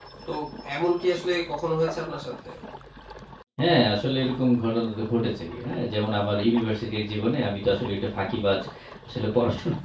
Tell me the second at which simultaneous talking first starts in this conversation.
none

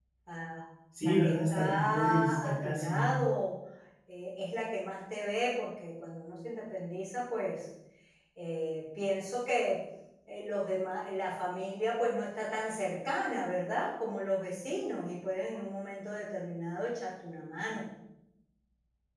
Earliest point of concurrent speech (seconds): 1.0 s

